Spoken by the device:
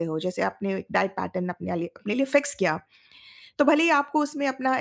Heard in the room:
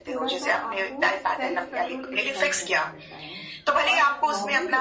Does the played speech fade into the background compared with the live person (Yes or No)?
No